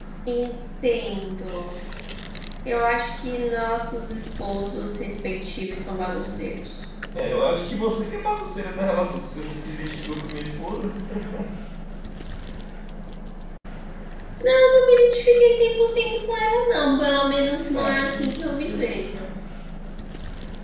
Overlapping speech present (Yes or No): Yes